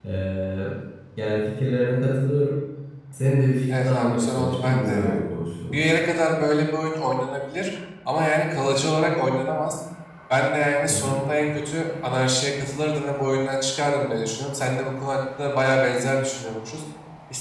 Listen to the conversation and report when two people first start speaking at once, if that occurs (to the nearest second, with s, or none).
4 s